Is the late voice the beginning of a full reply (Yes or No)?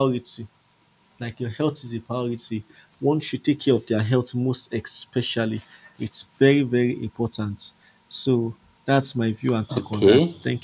Yes